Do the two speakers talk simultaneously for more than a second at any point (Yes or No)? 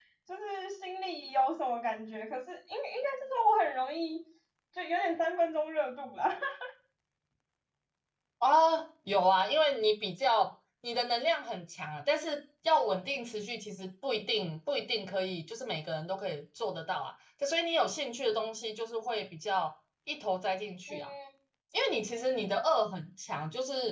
No